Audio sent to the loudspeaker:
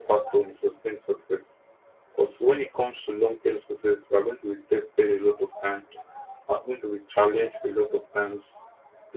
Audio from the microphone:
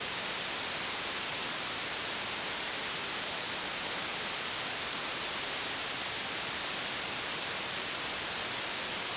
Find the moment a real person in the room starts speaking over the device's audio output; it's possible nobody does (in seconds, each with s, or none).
none